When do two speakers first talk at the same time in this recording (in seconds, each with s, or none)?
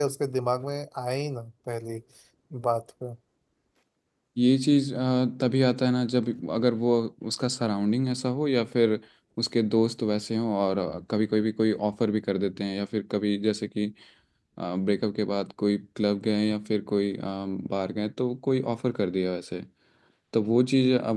none